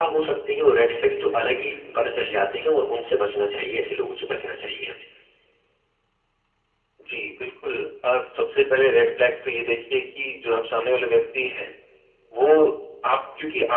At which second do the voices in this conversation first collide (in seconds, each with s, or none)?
none